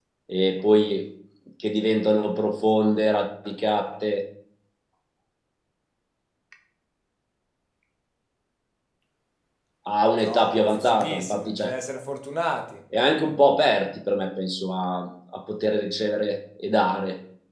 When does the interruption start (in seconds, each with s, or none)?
10.2 s